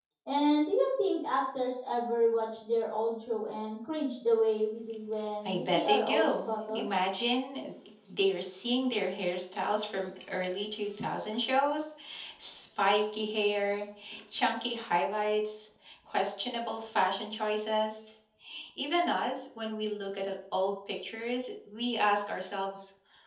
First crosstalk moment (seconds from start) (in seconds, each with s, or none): 5.5 s